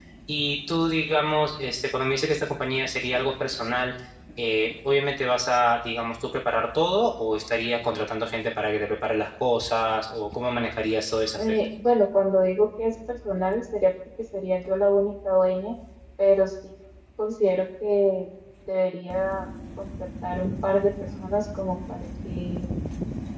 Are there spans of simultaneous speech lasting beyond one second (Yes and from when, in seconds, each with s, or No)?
No